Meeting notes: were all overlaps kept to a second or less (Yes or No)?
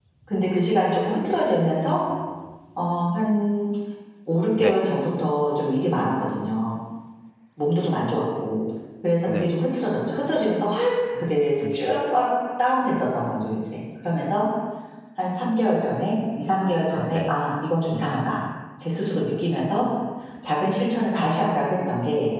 Yes